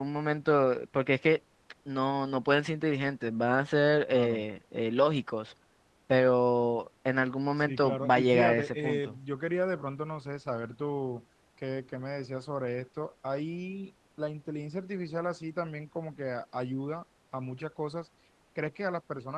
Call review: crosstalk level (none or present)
present